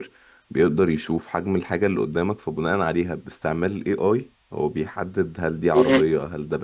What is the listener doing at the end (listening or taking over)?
listening